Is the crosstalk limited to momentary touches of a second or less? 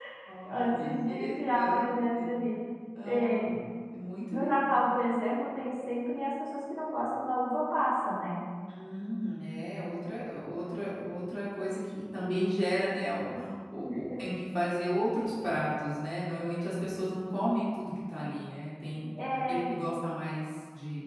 No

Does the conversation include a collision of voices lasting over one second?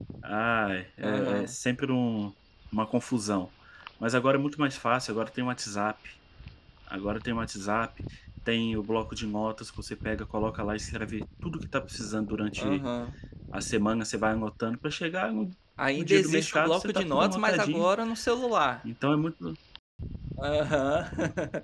Yes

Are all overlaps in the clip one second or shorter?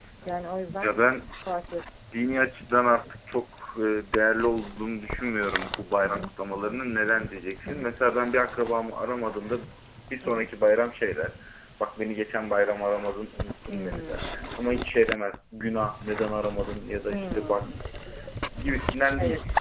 No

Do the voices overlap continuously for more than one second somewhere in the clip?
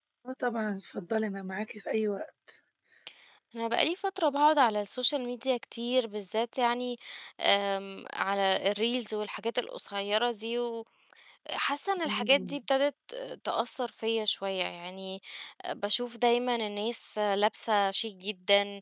No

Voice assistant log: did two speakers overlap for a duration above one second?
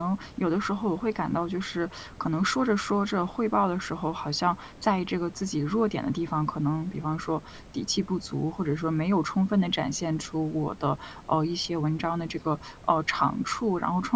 No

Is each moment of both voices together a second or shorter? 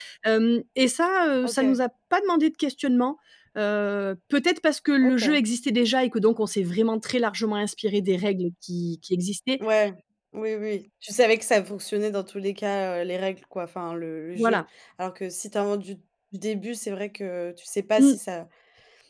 Yes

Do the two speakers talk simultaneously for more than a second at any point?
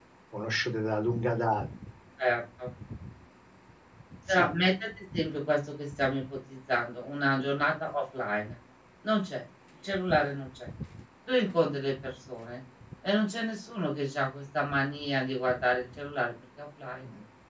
No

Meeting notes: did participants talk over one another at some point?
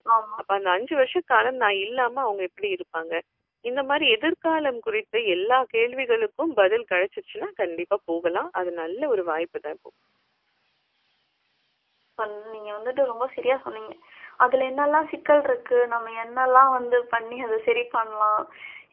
No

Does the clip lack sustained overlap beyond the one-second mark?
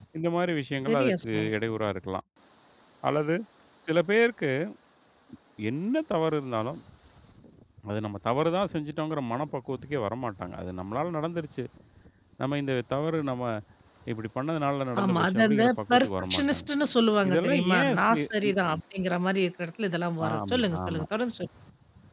No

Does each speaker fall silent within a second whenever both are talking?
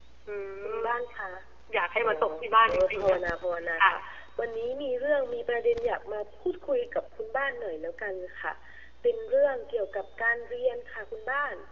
Yes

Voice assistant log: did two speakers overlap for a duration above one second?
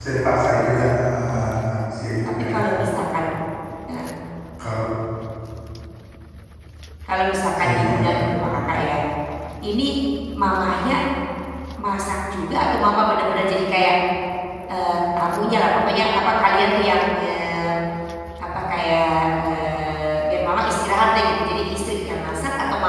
No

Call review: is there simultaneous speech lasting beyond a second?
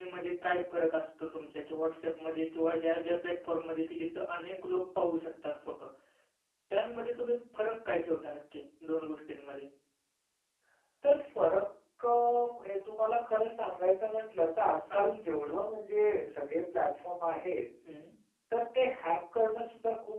No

